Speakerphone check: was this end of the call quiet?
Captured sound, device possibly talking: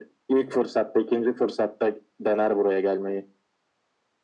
Yes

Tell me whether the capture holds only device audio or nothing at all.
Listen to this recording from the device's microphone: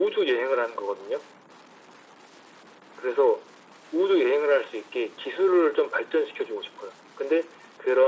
Yes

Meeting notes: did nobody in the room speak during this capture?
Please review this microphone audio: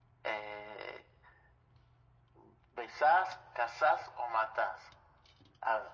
Yes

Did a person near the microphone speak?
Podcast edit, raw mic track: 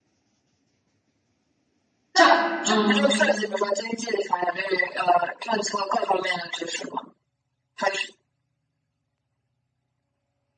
Yes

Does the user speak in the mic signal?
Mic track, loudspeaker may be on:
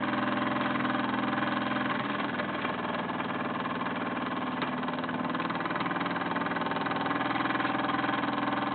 No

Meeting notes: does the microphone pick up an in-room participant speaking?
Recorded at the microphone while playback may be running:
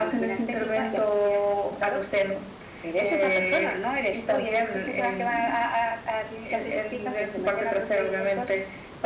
No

